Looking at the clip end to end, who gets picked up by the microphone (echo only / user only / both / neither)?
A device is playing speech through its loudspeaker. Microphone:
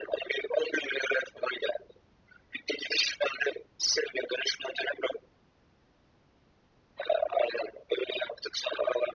echo only